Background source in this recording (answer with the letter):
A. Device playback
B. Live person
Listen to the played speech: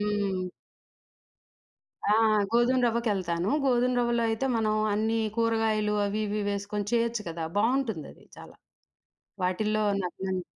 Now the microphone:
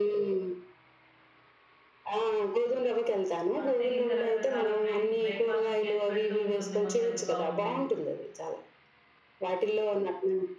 B